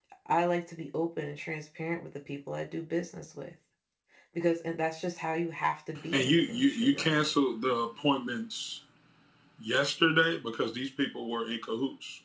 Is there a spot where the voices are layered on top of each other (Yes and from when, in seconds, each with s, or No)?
Yes, from 6.1 s